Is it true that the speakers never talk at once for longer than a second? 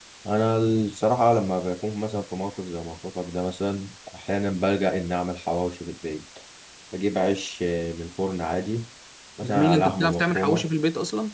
No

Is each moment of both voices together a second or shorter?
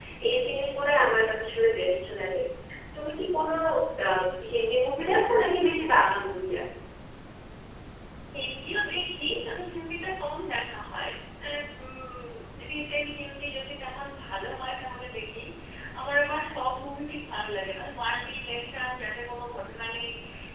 Yes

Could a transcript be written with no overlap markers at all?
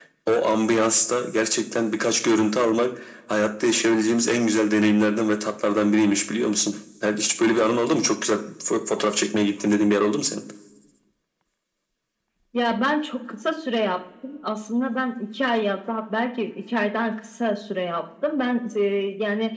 Yes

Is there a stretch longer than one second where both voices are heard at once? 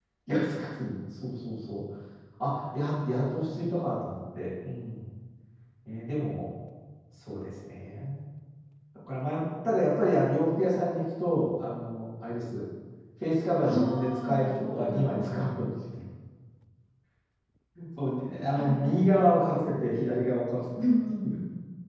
Yes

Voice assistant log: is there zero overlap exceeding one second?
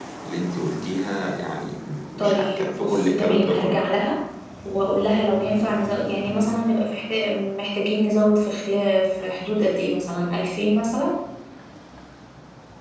No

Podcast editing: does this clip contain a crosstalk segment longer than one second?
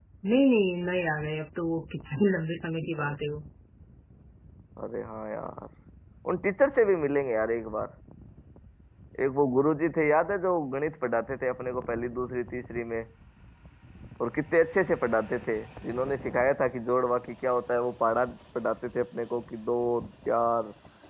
No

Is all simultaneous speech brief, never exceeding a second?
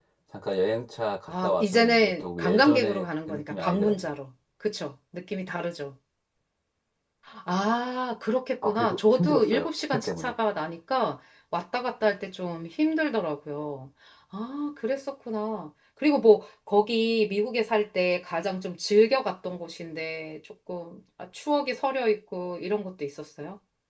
No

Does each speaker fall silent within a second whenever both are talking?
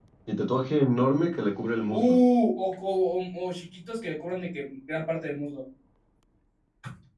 Yes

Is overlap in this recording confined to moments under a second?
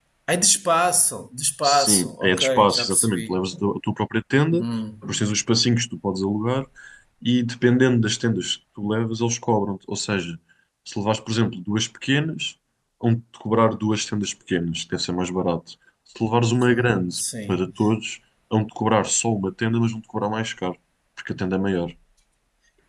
No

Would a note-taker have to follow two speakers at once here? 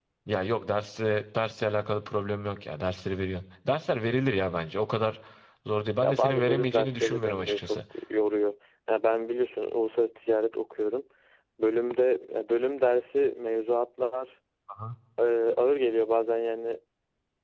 Yes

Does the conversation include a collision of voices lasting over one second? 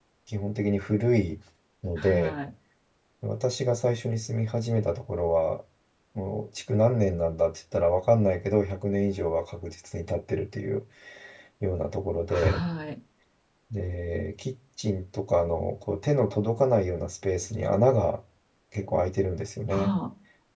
No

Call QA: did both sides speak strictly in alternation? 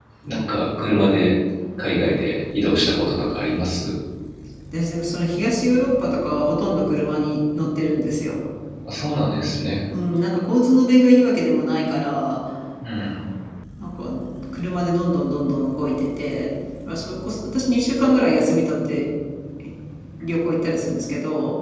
Yes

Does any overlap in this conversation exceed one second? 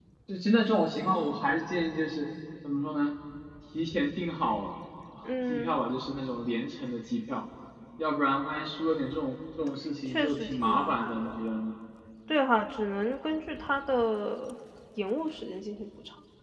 Yes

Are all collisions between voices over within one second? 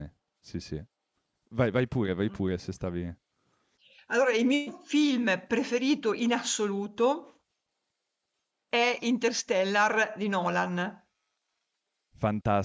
Yes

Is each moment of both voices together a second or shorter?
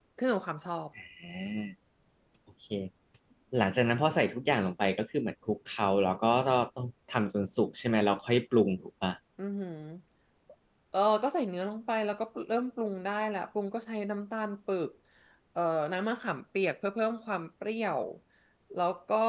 Yes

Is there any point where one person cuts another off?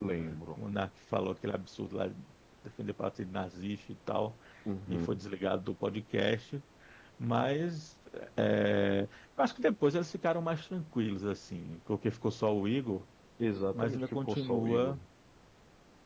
Yes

